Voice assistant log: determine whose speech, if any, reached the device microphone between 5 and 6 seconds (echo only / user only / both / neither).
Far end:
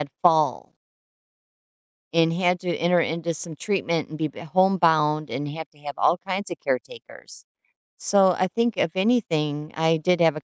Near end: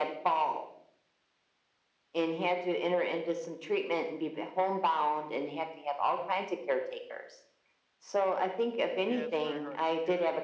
echo only